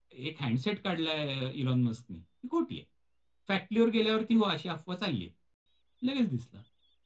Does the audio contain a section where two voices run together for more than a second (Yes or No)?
No